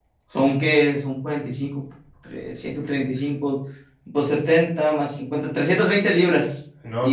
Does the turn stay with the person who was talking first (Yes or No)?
No